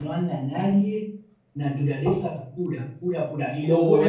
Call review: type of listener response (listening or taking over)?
taking over